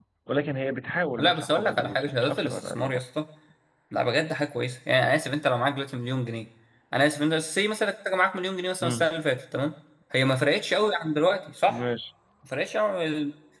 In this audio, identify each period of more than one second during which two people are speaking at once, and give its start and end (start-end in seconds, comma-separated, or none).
1.2-3.0